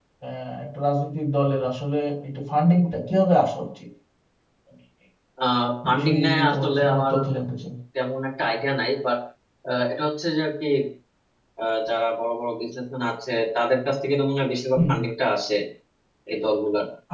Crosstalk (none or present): present